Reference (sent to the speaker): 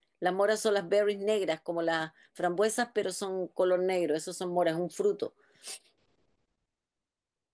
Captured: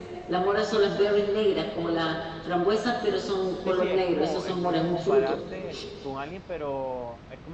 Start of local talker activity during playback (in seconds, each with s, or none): 3.5 s